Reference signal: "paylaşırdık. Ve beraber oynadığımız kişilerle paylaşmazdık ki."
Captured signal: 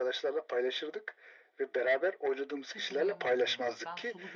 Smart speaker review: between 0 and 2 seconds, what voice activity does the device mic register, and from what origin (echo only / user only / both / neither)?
echo only